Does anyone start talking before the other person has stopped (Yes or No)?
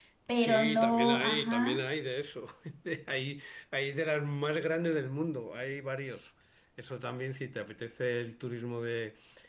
Yes